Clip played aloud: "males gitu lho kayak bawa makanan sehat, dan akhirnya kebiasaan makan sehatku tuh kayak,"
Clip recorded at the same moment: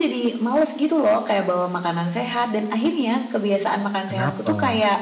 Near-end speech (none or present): present